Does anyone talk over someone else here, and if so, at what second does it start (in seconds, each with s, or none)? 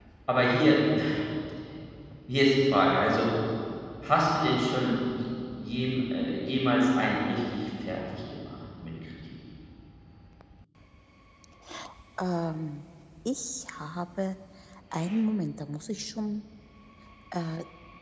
none